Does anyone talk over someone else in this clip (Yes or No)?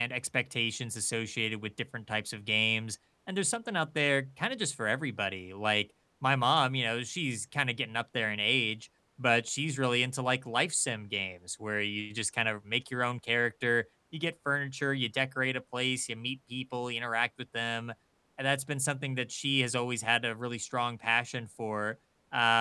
No